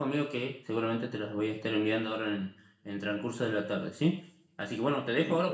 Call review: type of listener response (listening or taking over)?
listening